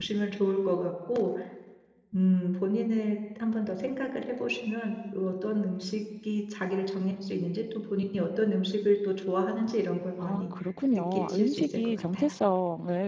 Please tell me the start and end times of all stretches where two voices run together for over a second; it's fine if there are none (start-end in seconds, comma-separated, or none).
10.9-12.3